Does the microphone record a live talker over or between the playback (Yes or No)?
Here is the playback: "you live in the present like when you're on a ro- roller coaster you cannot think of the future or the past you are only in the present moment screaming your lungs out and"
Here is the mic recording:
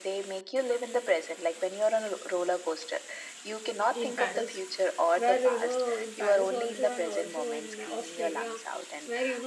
Yes